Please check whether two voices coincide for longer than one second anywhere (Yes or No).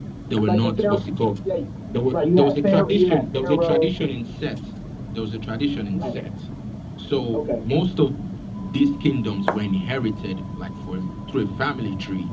Yes